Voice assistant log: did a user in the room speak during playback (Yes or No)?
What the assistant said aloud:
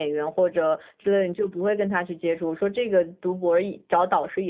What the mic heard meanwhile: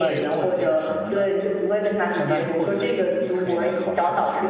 Yes